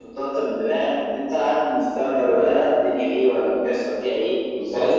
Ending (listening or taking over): listening